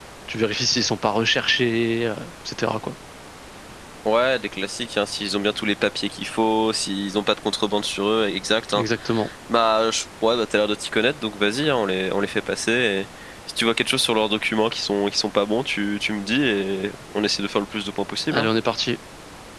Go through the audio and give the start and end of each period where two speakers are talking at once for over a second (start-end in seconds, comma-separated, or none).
none